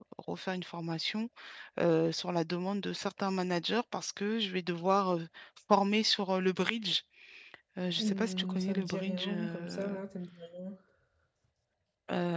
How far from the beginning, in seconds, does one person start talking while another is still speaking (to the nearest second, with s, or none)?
8 s